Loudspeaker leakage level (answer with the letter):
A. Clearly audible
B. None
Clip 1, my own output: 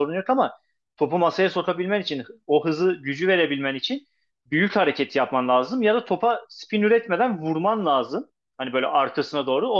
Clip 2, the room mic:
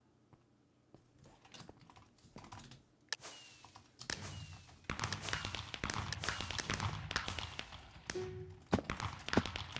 B